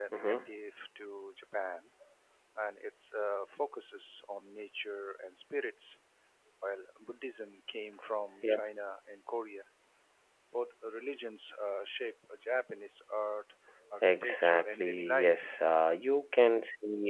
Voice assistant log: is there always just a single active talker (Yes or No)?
No